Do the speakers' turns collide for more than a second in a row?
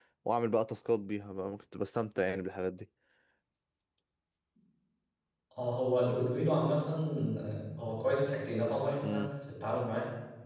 No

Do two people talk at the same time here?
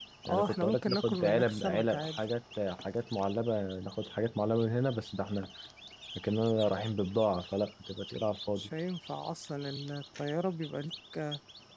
Yes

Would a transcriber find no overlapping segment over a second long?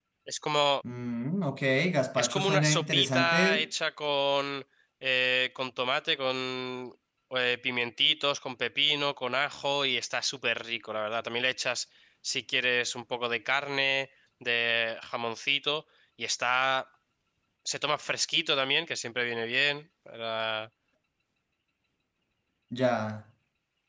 No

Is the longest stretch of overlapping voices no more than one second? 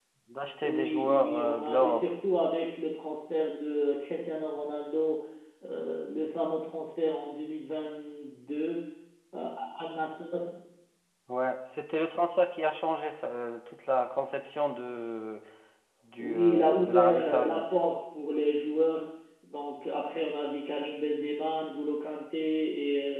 No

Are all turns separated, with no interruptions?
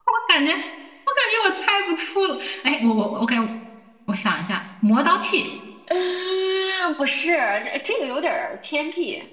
Yes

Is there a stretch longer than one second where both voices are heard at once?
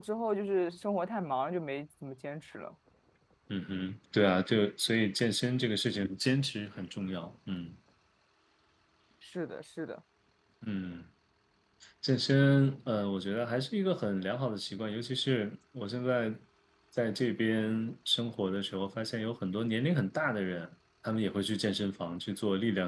No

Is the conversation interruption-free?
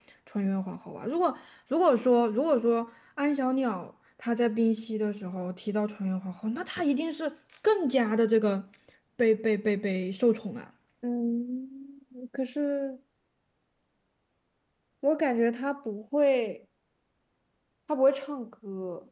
Yes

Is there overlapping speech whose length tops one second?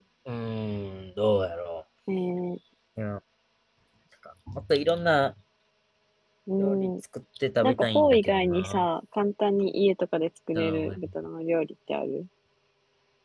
Yes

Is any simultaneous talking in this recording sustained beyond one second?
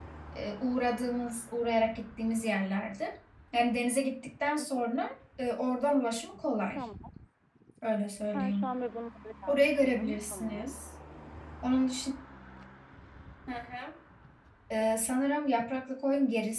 Yes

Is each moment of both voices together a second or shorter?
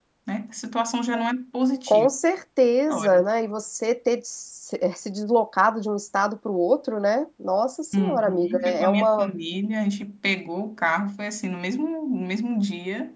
No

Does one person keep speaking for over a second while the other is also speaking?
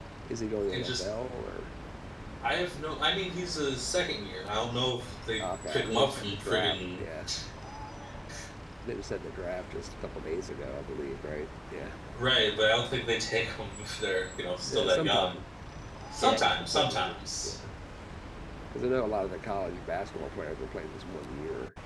Yes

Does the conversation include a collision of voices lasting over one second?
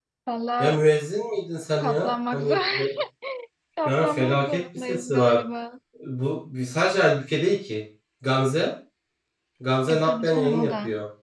Yes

